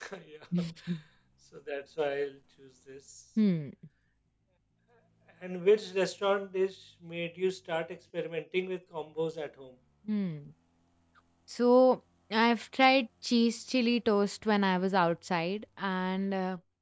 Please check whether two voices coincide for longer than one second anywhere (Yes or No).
No